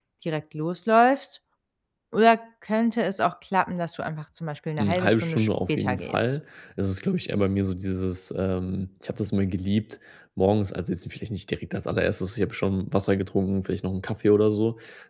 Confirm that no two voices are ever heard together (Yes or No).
No